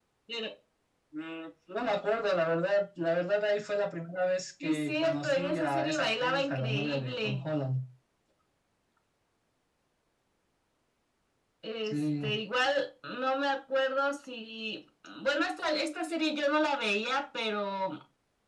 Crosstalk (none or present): present